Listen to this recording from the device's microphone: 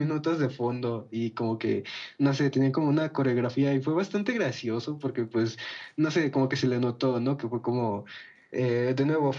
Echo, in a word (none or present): present